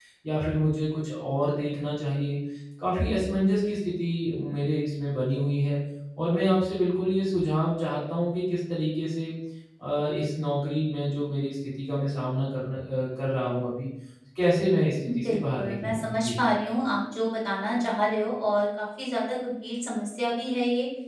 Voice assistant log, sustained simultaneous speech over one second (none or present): present